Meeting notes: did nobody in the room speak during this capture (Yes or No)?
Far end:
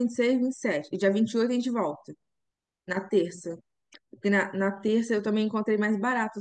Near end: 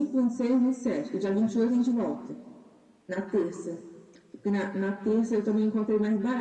Yes